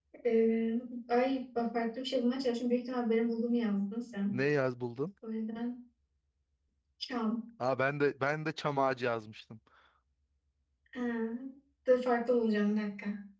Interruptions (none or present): none